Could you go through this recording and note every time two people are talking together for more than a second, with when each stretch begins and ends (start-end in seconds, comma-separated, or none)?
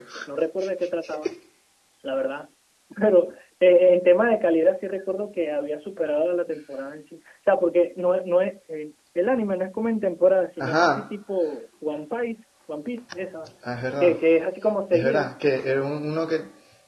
none